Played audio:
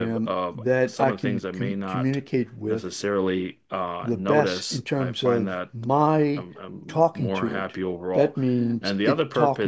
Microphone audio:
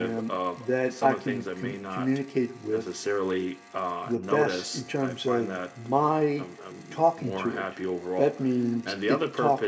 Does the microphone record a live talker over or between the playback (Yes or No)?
No